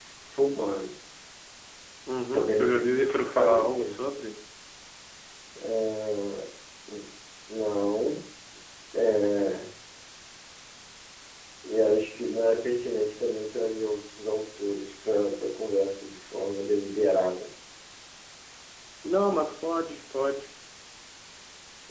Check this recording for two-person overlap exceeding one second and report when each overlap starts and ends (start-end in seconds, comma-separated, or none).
2.3-4.0